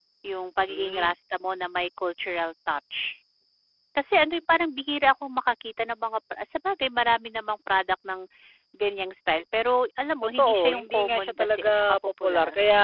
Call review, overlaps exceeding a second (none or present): present